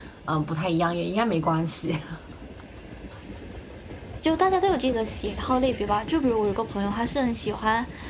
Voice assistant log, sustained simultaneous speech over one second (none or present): none